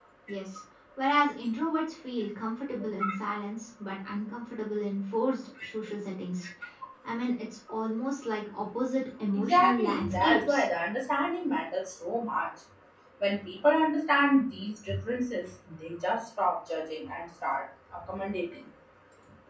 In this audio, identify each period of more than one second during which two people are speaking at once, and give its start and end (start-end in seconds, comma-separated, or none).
9.4-10.6